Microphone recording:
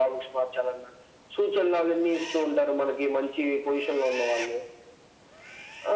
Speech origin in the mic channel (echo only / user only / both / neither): echo only